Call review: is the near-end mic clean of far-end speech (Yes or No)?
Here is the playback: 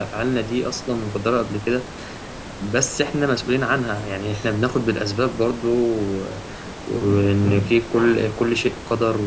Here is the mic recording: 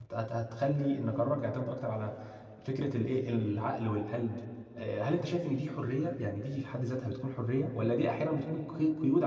Yes